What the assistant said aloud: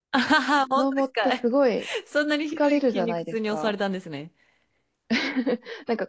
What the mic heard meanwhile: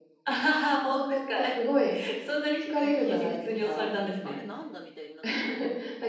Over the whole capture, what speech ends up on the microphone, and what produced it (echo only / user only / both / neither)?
both